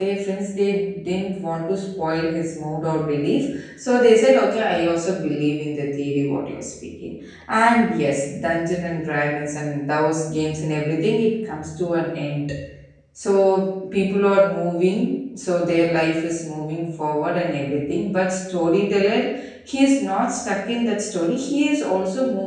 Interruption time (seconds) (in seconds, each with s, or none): none